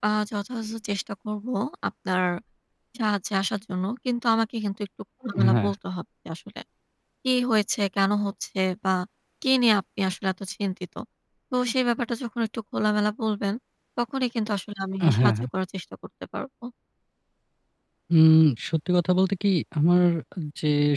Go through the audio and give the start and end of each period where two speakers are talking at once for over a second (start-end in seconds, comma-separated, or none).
none